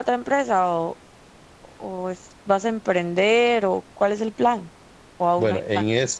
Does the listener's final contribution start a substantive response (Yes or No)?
Yes